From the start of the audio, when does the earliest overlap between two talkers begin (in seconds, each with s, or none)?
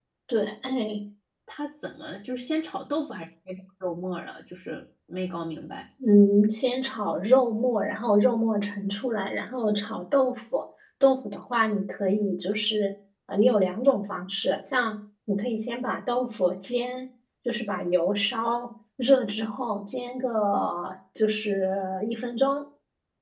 none